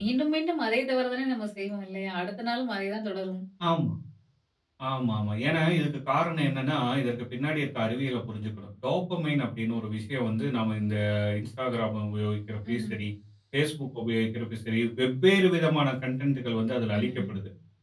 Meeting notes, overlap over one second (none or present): none